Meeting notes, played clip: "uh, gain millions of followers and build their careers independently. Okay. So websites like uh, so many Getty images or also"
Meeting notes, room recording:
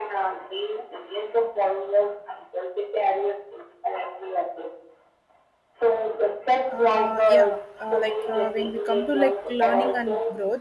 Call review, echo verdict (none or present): present